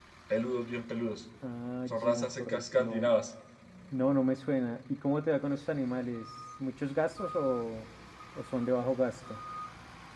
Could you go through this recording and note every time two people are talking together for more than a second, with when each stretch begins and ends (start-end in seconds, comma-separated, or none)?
1.9-3.1